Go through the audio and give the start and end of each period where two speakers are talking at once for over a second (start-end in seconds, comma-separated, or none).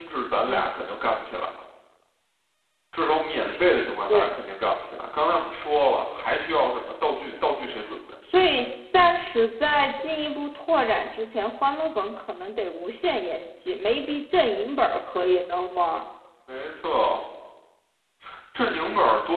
none